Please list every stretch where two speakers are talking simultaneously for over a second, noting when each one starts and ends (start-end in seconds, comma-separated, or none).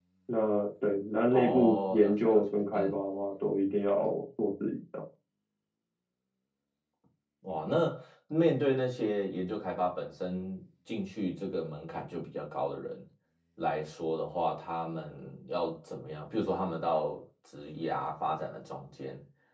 1.3-3.0